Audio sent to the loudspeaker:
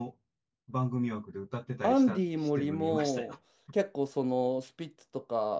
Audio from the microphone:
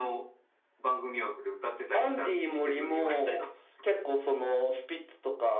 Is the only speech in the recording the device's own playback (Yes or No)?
Yes